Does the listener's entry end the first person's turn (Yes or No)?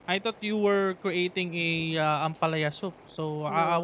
No